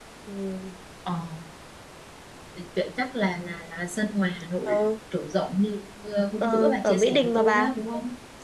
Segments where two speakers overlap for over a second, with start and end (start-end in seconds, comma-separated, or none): 6.4-7.7